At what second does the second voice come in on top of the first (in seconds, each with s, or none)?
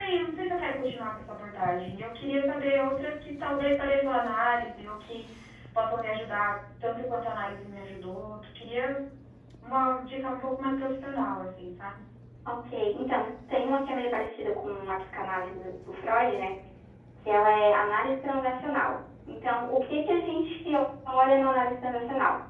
none